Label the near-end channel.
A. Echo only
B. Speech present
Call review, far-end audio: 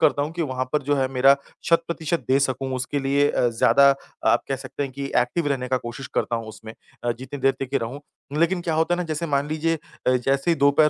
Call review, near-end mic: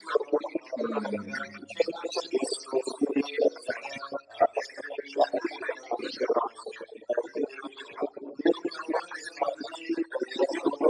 B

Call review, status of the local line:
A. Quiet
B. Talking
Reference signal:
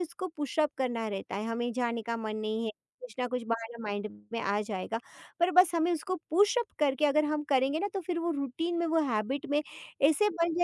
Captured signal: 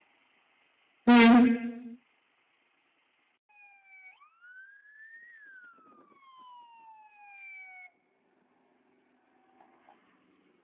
B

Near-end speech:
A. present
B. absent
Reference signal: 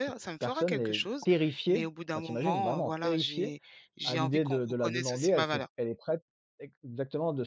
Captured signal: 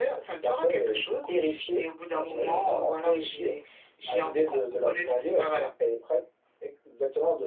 B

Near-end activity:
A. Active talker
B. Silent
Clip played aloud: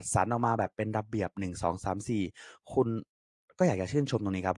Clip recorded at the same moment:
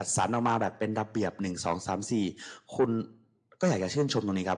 B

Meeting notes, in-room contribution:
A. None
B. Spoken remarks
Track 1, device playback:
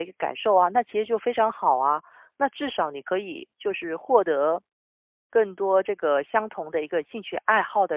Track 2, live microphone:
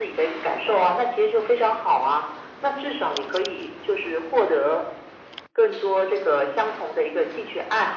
A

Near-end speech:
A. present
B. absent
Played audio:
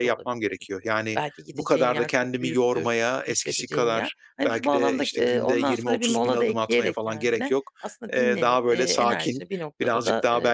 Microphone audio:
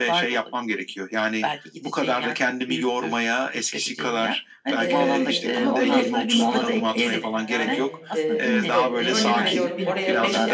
A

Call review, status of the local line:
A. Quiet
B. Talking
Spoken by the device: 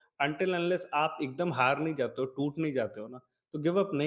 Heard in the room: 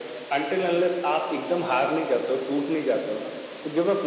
A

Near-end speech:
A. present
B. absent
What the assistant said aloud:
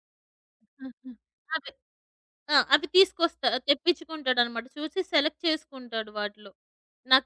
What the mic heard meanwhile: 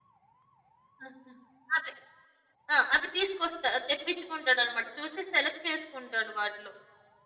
B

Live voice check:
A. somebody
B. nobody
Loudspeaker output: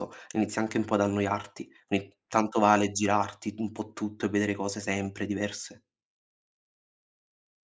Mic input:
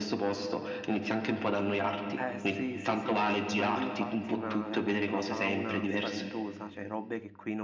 A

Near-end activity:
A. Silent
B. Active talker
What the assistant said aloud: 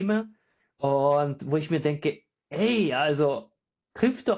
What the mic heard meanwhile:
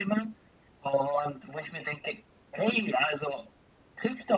A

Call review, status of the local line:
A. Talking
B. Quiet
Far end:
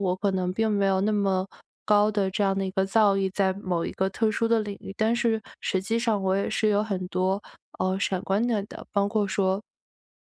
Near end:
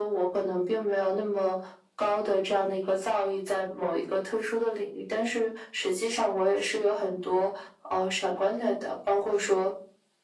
B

